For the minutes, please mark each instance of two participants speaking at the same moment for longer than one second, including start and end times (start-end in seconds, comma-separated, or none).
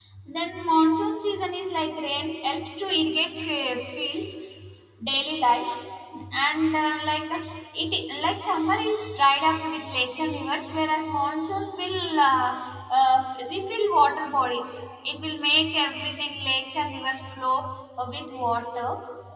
none